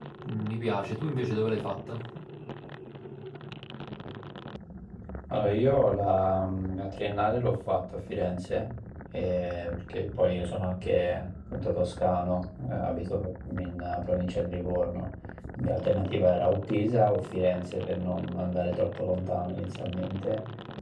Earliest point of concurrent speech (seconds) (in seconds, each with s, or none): none